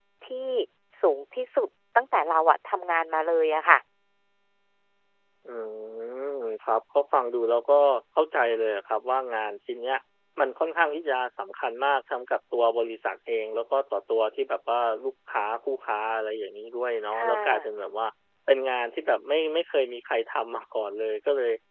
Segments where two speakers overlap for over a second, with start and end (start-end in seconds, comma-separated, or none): none